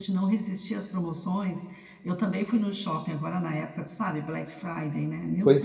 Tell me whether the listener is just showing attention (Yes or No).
No